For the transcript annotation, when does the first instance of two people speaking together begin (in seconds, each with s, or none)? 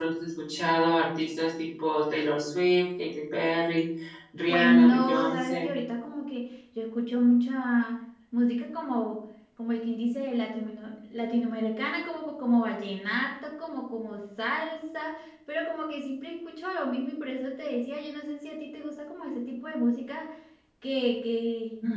4.5 s